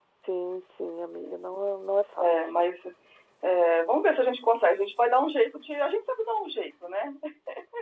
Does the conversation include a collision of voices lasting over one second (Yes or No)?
No